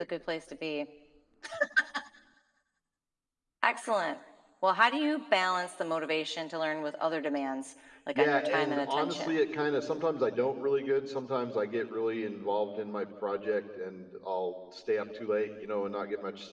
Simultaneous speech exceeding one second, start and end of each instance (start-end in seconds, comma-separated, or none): 8.2-9.3